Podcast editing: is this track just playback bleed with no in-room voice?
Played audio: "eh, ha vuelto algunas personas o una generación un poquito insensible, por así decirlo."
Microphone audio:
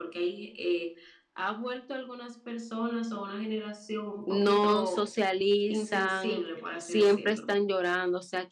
No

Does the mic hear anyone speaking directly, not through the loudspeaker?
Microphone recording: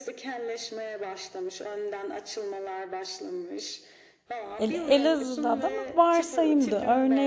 Yes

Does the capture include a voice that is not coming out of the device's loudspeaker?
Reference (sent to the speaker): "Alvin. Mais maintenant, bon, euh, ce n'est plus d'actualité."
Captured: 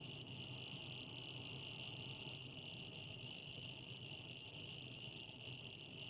No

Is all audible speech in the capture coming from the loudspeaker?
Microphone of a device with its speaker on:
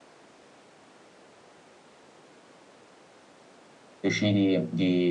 No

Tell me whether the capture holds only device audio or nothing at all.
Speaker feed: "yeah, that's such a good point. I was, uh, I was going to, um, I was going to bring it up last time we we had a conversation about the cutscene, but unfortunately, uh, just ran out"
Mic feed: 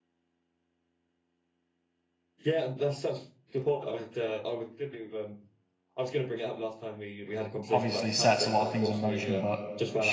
No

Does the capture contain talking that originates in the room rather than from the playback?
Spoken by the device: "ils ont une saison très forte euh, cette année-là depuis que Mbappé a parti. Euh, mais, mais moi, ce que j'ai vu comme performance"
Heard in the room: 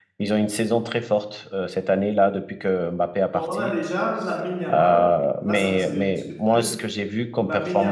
Yes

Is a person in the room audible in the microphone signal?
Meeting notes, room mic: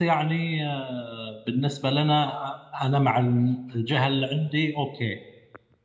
Yes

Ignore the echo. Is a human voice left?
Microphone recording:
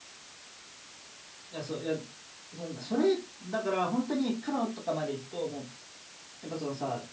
Yes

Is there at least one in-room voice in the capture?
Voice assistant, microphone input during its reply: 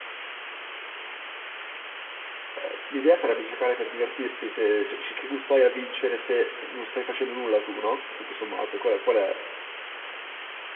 Yes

